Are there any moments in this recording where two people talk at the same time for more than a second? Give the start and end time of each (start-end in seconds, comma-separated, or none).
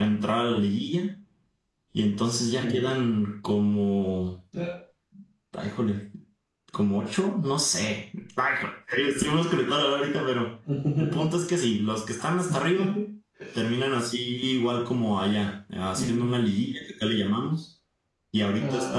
none